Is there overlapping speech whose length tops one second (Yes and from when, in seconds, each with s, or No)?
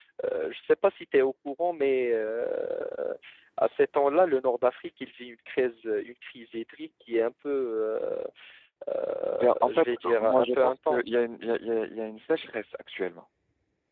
Yes, from 9.3 s